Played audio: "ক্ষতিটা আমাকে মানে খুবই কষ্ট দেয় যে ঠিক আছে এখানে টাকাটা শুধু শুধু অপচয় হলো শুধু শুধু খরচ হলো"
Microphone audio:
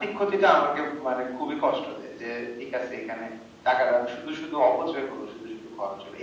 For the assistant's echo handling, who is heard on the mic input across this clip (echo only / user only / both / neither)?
echo only